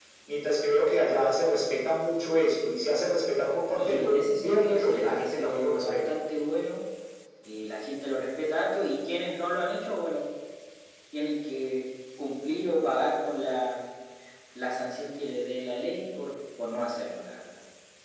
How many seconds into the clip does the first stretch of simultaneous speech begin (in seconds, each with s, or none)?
3.8 s